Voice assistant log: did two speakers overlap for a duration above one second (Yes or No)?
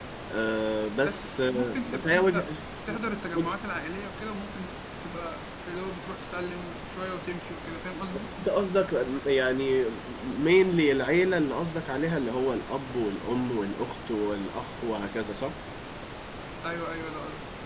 Yes